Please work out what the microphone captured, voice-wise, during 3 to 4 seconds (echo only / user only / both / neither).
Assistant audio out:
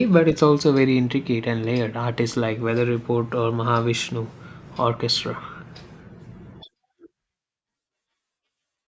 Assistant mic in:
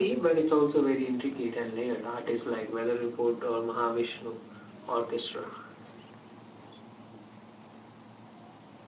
echo only